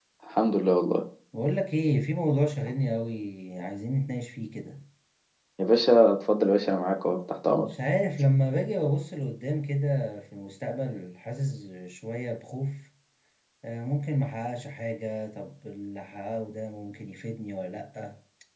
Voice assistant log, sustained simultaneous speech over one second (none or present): none